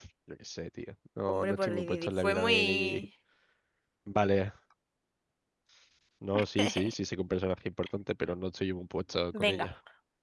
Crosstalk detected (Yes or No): Yes